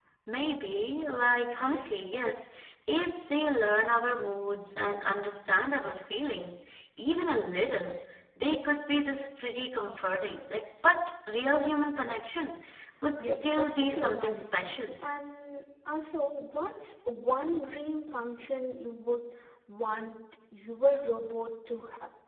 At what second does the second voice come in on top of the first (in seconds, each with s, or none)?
13.2 s